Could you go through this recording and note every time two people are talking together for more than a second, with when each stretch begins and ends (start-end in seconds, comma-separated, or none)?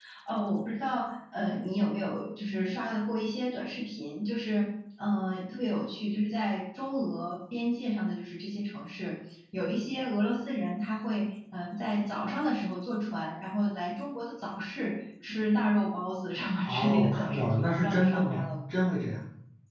16.6-18.4